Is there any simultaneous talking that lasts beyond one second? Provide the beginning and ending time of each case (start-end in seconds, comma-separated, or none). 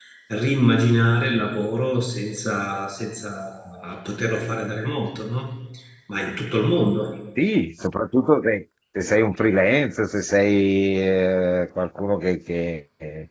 none